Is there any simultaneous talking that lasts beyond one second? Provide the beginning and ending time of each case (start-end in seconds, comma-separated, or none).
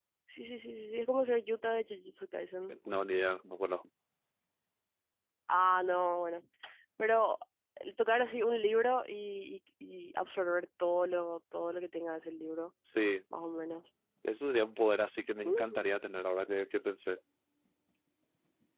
none